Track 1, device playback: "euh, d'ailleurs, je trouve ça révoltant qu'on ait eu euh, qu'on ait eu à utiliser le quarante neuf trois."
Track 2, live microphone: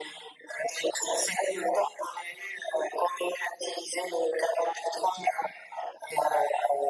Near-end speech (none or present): none